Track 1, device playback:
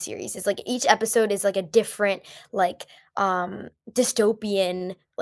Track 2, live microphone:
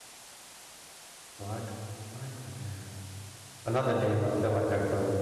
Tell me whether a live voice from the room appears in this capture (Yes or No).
Yes